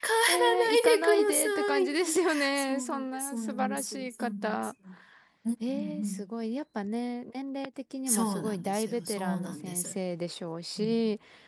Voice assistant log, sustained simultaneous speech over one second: present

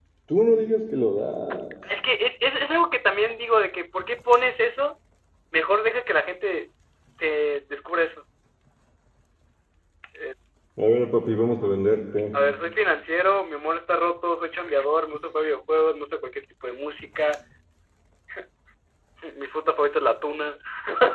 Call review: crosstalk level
none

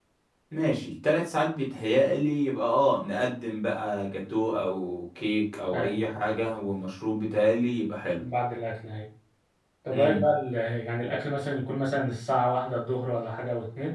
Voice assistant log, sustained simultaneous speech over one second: none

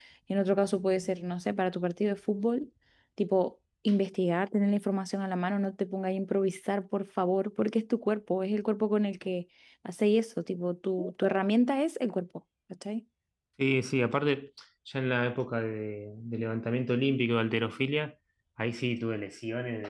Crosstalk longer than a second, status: none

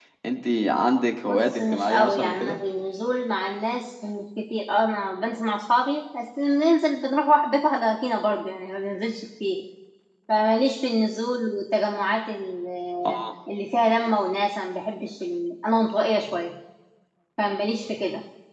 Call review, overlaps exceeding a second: present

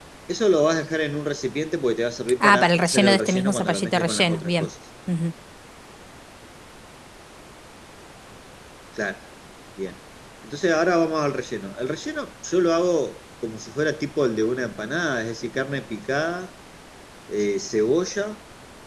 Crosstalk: present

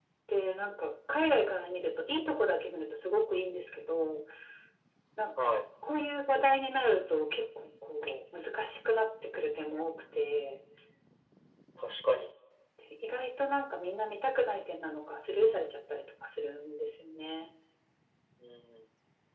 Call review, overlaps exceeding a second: none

